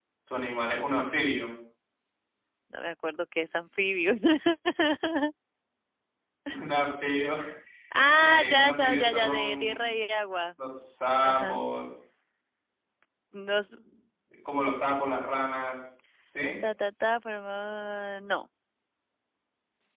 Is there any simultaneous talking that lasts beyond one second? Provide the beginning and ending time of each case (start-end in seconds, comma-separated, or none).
8.2-9.9